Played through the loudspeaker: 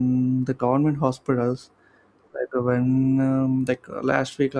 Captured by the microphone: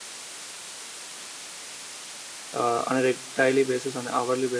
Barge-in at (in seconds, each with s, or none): 2.5 s